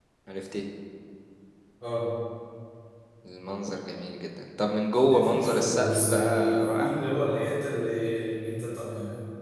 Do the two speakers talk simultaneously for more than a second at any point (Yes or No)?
Yes